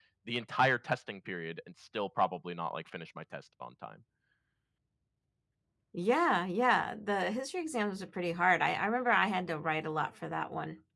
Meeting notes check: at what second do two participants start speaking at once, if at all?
none

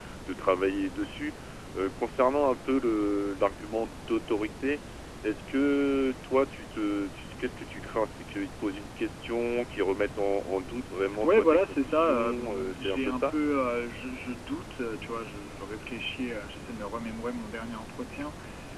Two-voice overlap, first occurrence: 11 s

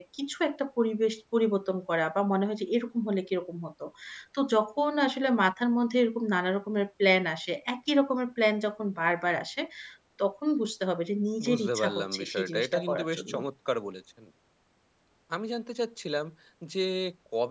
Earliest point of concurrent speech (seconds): 11 s

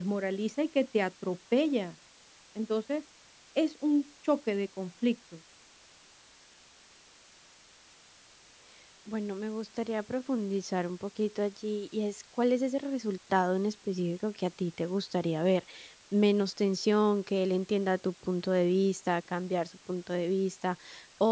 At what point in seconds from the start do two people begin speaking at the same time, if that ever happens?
none

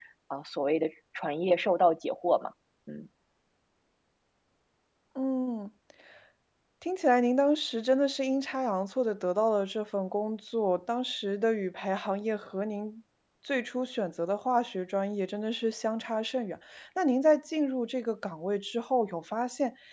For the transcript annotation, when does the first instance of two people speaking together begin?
none

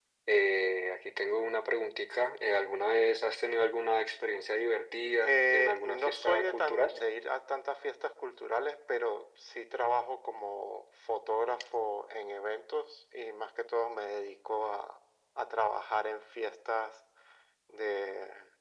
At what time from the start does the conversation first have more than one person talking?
5 s

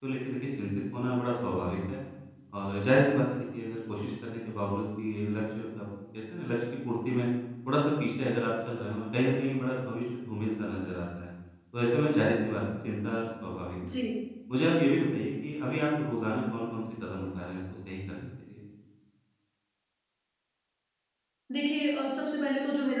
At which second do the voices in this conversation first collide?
none

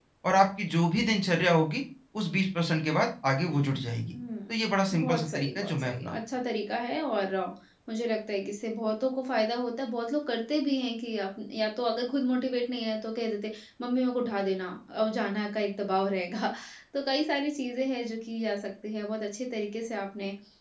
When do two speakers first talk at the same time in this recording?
5 s

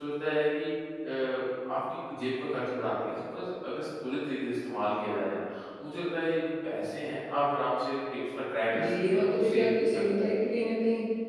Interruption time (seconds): 9 s

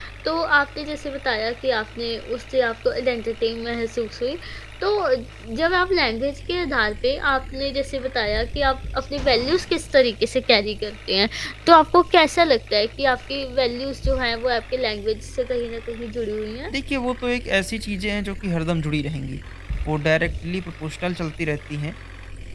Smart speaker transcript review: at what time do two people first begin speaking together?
none

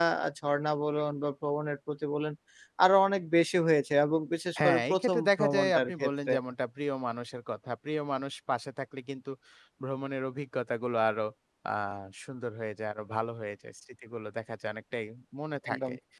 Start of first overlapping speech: 5 s

